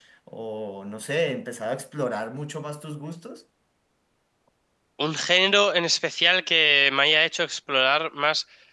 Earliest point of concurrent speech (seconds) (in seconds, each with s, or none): none